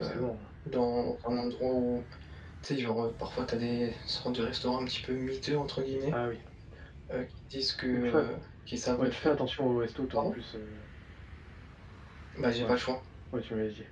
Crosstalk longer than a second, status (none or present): none